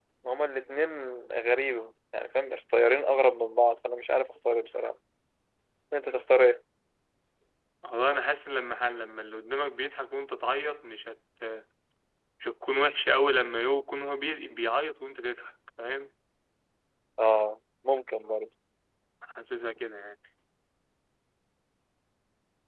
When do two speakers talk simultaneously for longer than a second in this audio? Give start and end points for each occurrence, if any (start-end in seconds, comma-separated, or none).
none